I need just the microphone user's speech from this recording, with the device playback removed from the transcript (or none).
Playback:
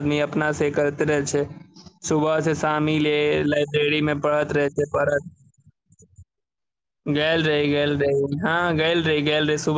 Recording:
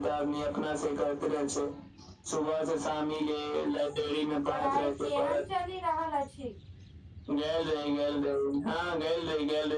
पढ़ाई केहन चलि रहल अछि